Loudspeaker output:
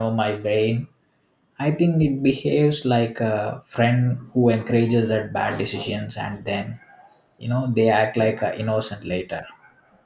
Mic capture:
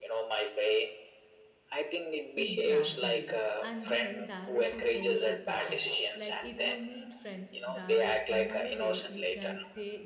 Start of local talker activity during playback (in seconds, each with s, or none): 2.3 s